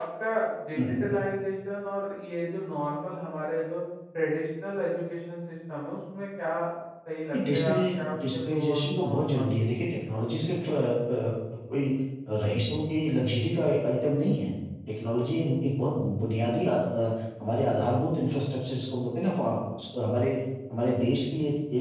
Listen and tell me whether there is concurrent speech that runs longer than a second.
Yes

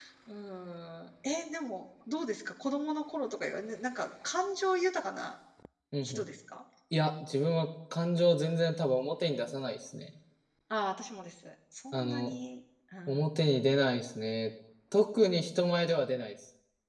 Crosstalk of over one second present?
No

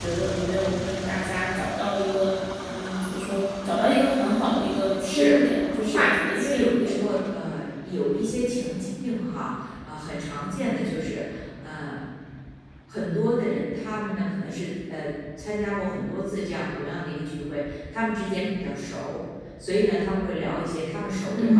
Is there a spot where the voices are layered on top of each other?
Yes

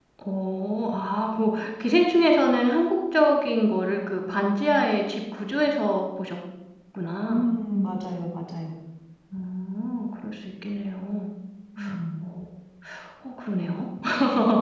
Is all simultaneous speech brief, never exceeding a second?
Yes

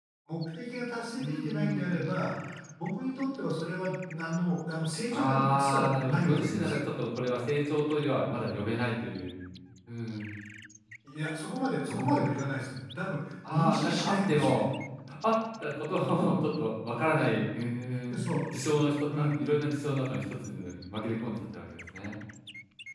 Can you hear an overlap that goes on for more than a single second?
Yes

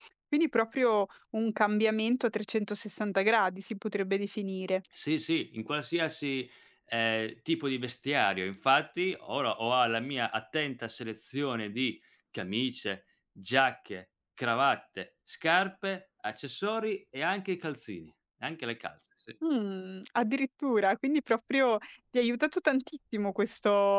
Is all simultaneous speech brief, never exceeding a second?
Yes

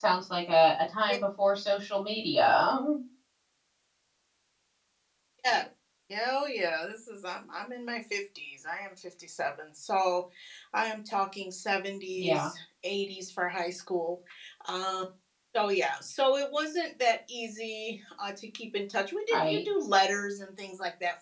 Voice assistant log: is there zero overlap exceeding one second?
Yes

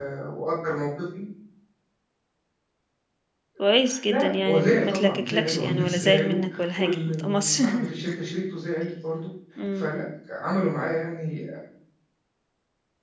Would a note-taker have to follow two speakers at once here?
Yes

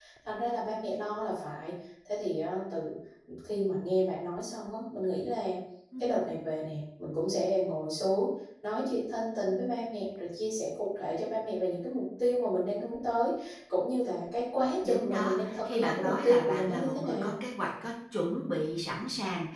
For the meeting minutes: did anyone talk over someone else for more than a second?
Yes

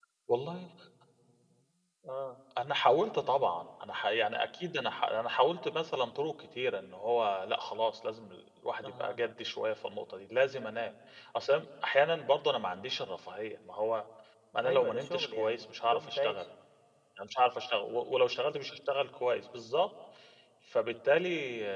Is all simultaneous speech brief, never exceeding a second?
No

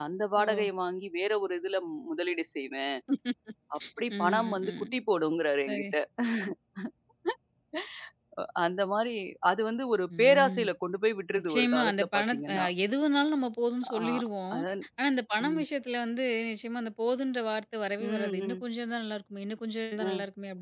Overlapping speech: Yes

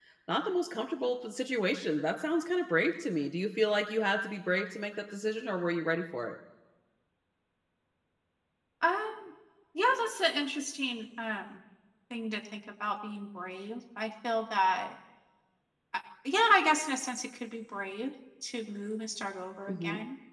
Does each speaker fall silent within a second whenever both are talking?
Yes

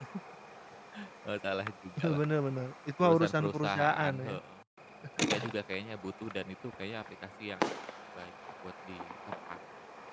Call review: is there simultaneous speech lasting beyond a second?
Yes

